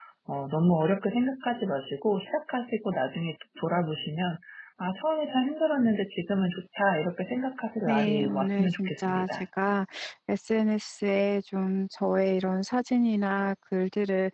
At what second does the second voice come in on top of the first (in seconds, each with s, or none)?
7.9 s